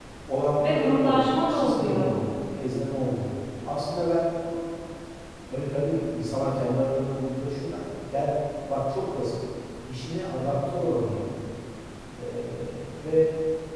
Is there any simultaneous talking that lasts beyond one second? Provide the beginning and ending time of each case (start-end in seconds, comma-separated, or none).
0.6-2.1